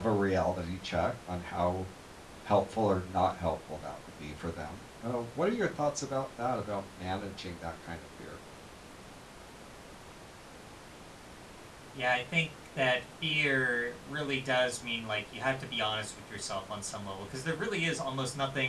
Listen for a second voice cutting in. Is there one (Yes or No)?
No